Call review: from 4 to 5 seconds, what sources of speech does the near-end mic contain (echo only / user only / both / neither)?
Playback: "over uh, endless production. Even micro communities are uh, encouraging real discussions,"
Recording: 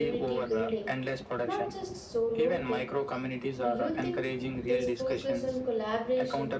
both